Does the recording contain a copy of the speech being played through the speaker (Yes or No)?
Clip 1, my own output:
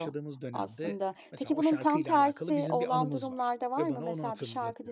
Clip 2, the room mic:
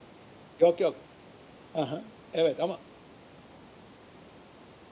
No